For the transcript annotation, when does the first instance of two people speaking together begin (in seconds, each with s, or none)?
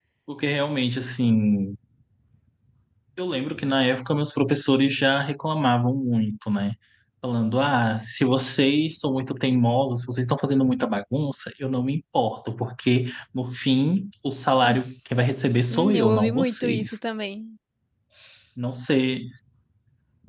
15.7 s